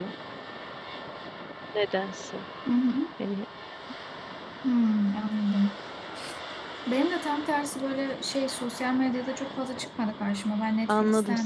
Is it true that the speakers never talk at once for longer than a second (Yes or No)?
Yes